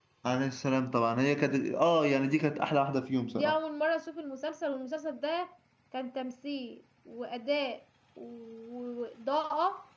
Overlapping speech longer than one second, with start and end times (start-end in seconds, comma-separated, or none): none